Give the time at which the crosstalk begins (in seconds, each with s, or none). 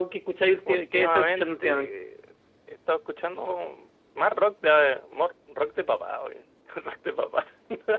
0.7 s